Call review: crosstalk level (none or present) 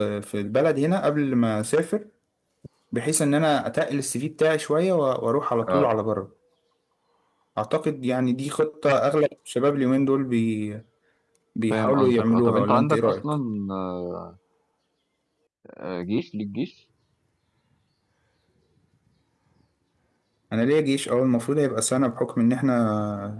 present